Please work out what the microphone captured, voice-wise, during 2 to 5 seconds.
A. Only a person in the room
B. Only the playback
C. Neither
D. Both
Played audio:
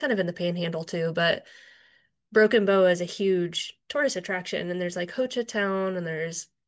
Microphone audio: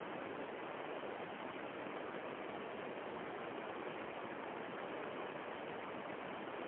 C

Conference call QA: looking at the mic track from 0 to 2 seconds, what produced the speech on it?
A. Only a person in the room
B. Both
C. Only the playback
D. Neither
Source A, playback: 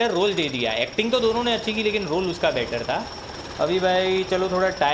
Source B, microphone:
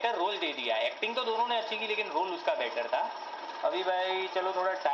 C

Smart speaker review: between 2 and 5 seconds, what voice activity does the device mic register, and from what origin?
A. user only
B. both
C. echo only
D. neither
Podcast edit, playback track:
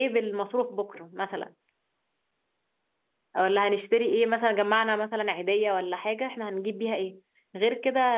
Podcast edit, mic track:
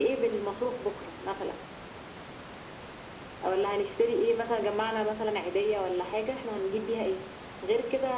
C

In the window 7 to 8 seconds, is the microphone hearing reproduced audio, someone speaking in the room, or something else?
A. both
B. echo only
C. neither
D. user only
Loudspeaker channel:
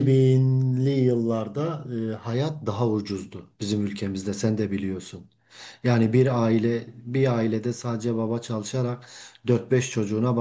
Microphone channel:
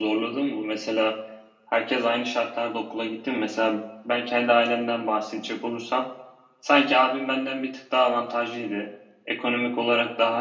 D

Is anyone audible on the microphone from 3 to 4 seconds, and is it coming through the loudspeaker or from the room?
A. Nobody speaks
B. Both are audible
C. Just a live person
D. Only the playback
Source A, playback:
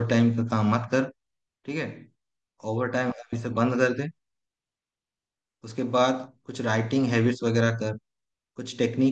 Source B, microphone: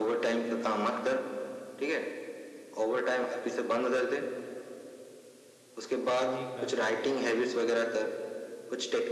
D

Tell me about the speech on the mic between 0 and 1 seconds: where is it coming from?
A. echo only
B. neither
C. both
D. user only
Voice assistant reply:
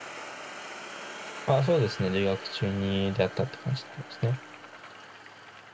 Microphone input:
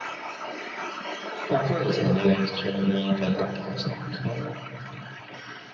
B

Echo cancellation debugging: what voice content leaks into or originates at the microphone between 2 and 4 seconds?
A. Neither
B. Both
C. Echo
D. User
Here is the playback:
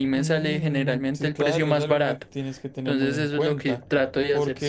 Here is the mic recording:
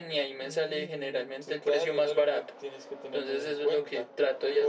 C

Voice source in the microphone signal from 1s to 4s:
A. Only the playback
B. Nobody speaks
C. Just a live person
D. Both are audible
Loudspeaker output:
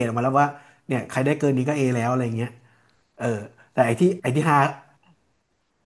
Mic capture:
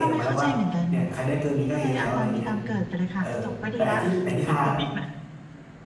D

